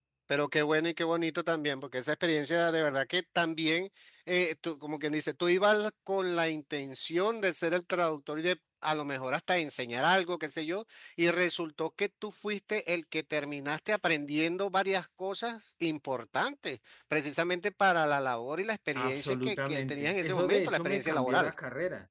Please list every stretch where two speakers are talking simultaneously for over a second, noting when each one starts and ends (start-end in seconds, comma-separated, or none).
19.0-21.5